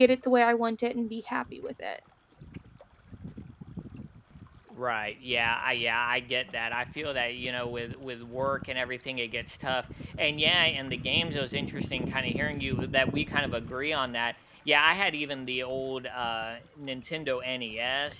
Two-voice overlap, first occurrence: none

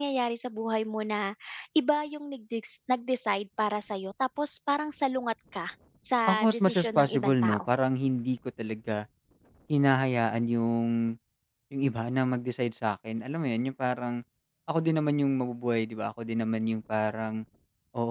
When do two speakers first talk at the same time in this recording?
6.3 s

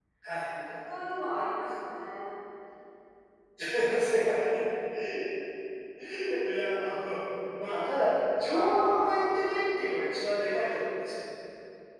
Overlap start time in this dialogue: 8.5 s

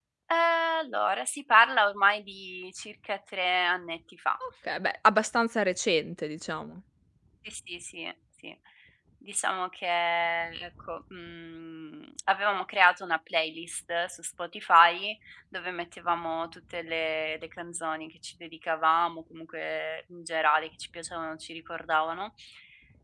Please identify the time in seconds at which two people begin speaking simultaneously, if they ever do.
none

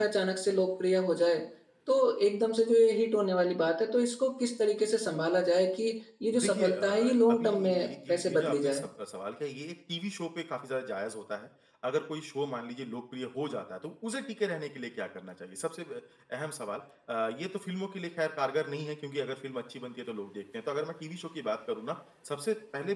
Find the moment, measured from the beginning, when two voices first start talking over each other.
6.3 s

